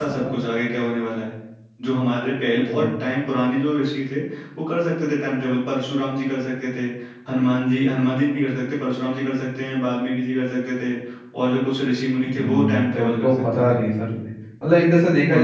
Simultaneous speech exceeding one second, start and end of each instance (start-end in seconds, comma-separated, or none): 12.2-13.8